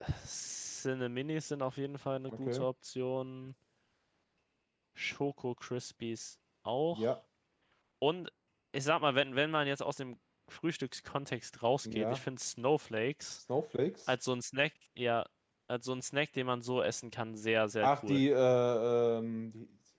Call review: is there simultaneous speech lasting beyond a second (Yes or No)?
No